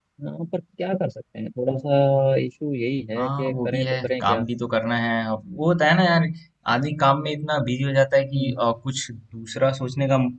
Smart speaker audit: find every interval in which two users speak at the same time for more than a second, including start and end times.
3.2-4.4

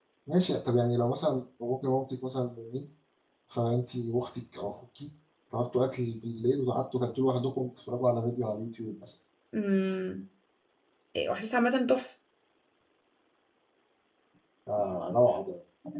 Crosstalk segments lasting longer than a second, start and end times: none

